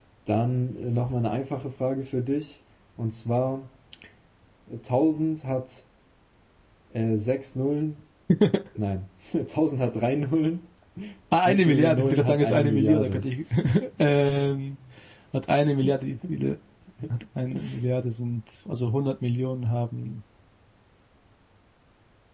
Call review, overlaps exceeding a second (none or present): present